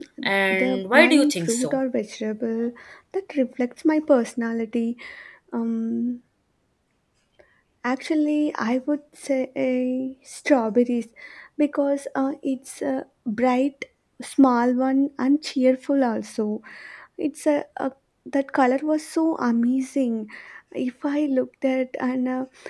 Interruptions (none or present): present